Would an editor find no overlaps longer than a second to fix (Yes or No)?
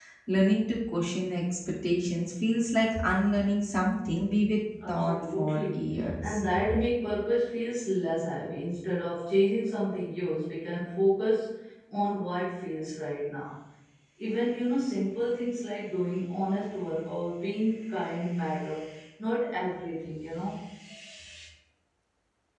No